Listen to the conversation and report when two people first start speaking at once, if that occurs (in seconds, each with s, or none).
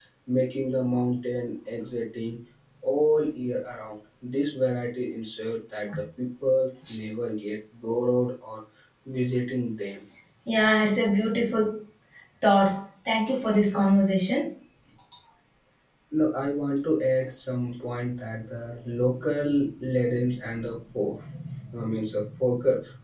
none